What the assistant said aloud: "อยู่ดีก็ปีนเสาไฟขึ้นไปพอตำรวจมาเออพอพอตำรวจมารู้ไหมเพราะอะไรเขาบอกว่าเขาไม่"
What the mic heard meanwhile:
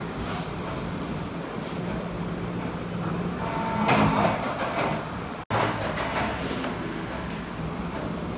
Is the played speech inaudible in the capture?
Yes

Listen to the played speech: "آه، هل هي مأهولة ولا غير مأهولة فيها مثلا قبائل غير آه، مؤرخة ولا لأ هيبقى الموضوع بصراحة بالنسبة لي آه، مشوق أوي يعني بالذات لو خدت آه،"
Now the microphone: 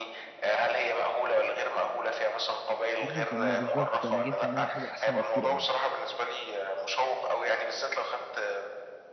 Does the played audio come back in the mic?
Yes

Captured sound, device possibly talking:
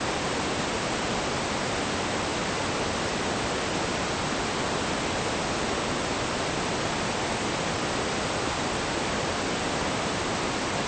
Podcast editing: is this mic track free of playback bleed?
Yes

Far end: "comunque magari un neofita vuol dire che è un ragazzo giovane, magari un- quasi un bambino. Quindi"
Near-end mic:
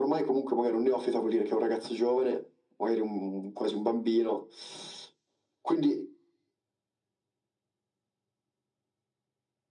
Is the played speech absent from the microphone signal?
No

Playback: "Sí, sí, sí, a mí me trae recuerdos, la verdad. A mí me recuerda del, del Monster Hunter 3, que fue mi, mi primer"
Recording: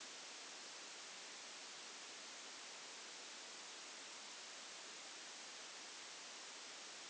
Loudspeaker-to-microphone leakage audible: No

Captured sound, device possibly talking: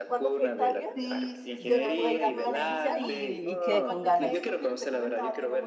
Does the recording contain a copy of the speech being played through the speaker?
Yes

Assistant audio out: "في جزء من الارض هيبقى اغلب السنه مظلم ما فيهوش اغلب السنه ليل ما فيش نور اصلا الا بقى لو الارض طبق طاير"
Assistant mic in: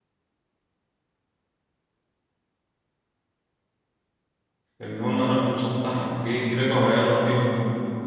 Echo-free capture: Yes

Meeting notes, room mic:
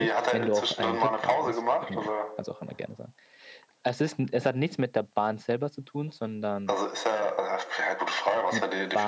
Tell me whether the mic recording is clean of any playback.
No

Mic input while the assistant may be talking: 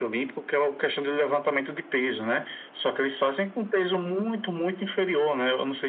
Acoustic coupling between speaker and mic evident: Yes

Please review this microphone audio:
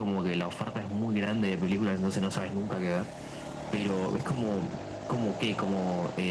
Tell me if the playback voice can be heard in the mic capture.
Yes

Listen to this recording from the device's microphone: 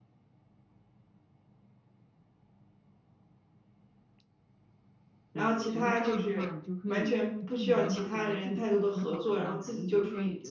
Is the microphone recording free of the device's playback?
No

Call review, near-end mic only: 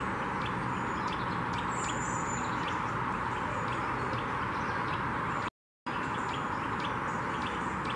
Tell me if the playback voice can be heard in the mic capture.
No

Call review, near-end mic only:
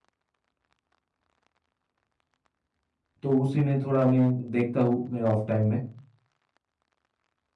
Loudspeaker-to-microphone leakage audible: No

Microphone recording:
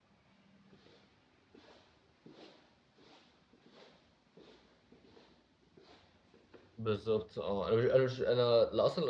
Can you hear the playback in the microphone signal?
No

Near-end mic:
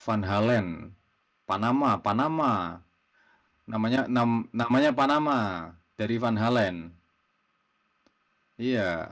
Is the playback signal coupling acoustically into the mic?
No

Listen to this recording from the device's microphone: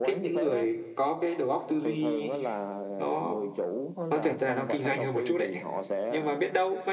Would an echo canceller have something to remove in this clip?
Yes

